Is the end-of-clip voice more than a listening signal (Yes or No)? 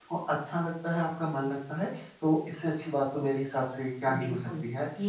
Yes